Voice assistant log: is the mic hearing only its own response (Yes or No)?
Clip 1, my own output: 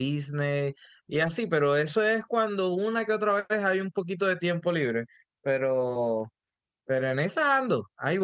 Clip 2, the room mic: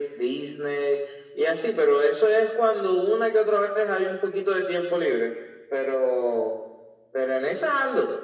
Yes